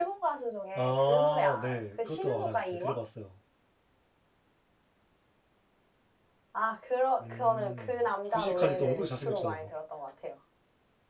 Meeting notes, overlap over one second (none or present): present